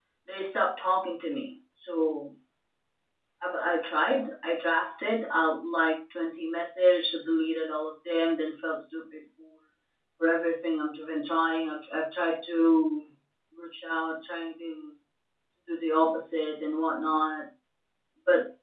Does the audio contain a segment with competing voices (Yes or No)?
No